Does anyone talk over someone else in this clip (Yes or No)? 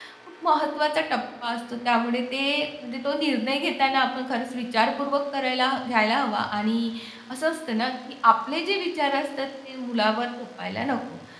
No